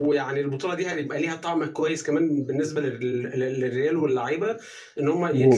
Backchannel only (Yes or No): Yes